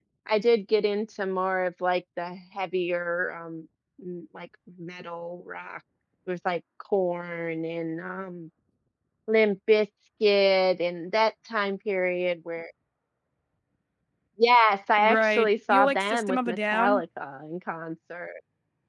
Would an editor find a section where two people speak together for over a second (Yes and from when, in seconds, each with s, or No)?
Yes, from 15.0 s